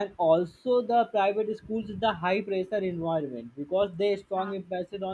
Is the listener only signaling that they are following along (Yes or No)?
Yes